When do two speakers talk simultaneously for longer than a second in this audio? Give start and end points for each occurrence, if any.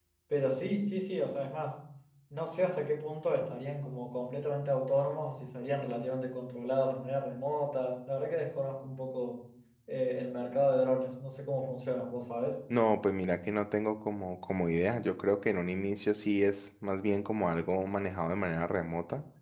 none

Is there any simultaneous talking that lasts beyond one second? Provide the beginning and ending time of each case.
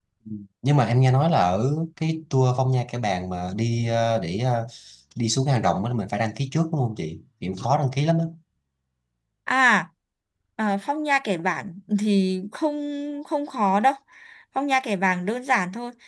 none

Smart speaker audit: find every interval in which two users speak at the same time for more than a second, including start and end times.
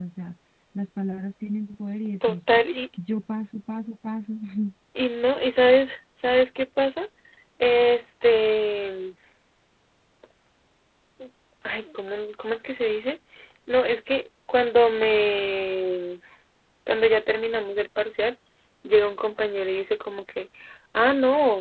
none

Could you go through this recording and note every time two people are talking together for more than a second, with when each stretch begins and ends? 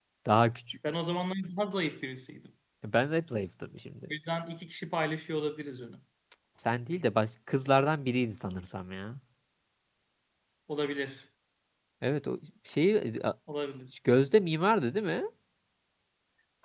none

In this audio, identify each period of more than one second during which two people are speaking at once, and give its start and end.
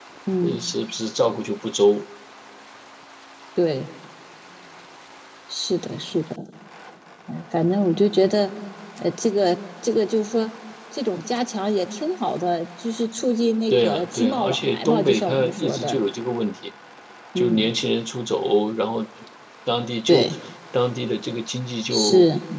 13.7-16.0

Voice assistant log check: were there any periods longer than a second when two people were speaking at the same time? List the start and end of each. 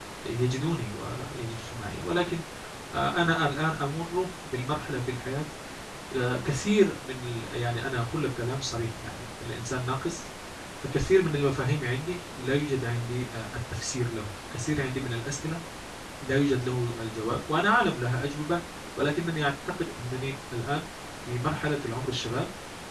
none

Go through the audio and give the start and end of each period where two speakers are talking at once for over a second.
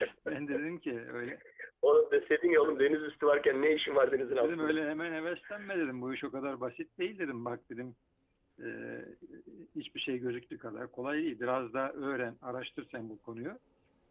none

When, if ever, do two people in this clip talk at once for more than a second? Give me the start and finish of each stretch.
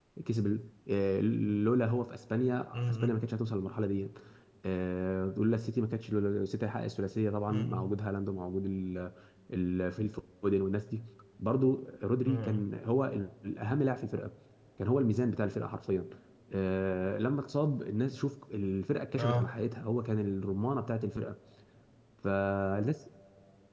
none

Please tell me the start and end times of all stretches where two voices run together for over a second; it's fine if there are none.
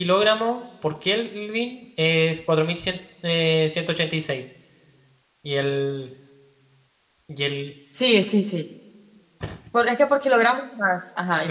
none

